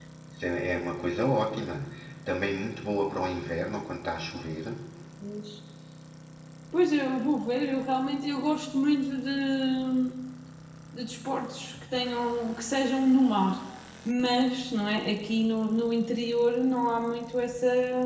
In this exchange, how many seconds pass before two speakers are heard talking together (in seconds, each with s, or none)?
none